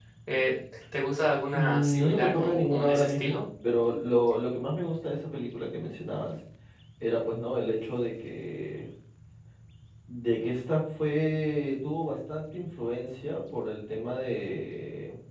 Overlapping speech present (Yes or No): Yes